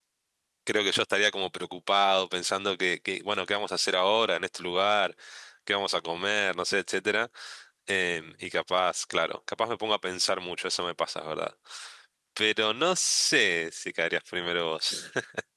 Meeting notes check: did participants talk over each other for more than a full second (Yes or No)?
No